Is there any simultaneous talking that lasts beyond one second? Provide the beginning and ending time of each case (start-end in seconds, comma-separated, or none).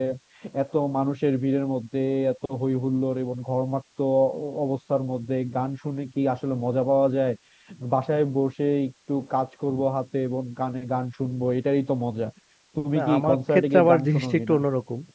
13.0-14.6